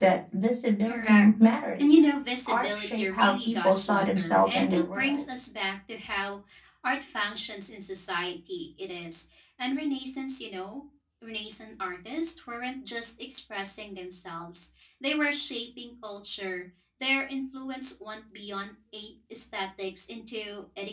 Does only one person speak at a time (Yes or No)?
No